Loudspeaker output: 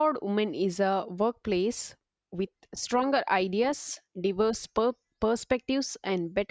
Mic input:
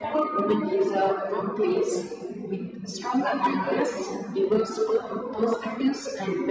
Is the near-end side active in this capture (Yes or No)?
No